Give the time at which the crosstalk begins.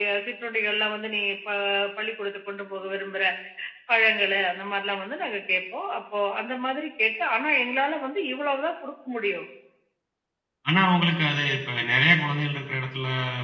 none

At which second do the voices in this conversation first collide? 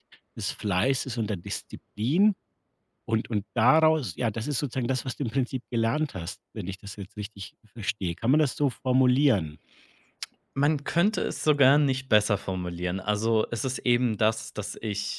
none

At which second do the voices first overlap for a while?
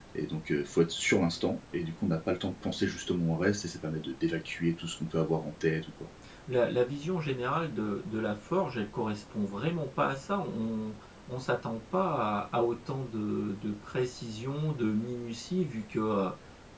none

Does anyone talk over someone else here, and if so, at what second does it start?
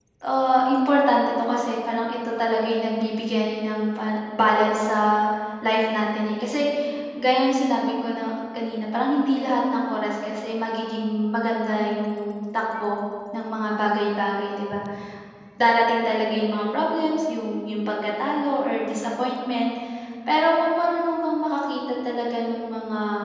none

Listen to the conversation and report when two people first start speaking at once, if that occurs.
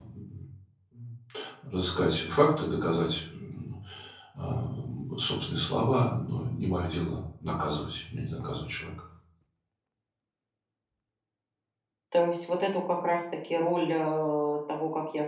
none

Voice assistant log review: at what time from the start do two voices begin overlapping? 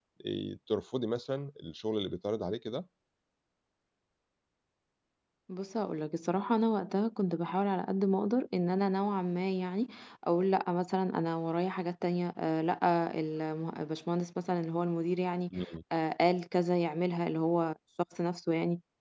none

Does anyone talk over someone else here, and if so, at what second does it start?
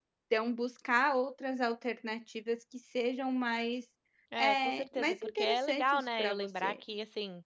4 s

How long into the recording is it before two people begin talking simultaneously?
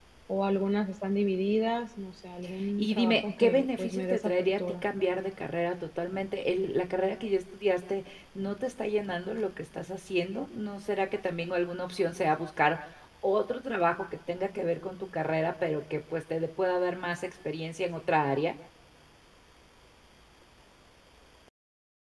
3 s

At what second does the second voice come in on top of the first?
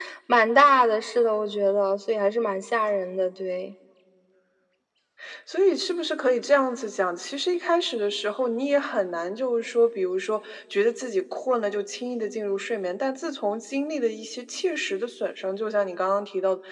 none

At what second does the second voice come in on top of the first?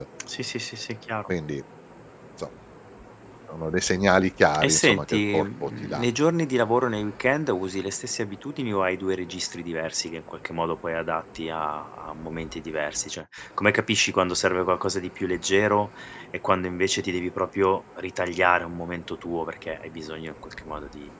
5 s

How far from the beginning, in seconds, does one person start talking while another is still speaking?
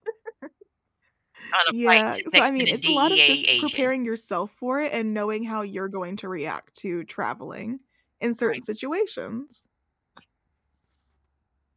2 s

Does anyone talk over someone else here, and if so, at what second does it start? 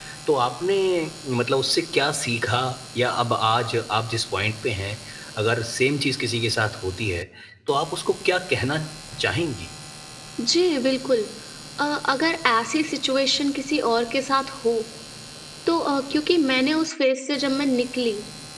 none

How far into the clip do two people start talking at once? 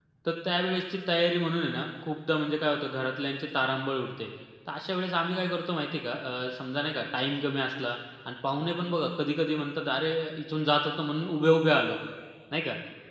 none

